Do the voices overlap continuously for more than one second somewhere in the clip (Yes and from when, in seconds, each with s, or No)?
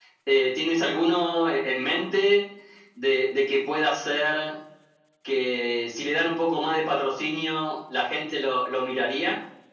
No